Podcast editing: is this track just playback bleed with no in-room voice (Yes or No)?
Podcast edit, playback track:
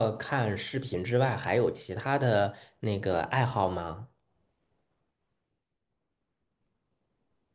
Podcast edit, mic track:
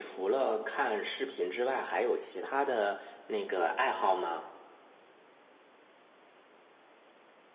Yes